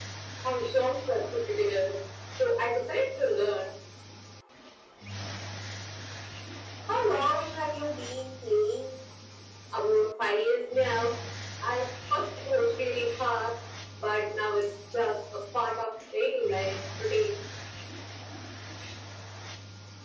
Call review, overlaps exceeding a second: none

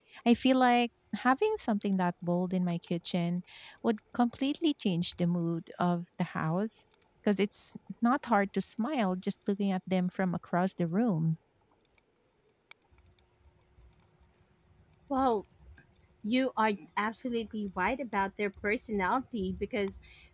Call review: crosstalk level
none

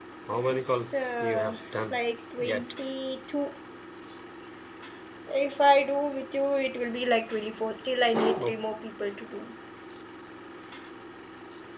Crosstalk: present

